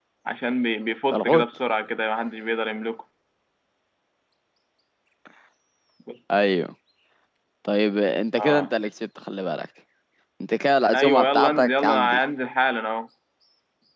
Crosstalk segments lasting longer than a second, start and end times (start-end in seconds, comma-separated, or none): 10.9-12.2